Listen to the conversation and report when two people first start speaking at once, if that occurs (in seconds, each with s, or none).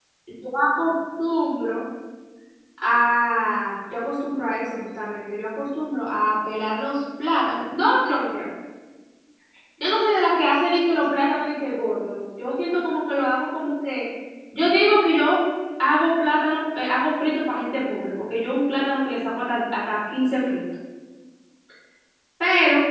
none